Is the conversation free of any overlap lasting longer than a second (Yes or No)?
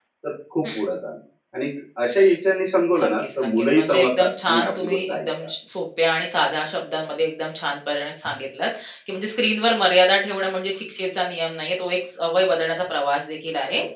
No